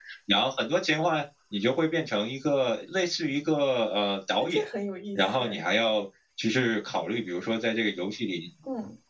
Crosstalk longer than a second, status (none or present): none